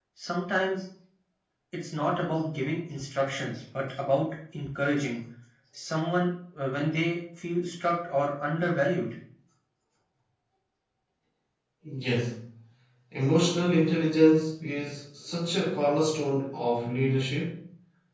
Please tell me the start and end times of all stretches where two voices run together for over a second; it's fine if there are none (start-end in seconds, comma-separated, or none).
none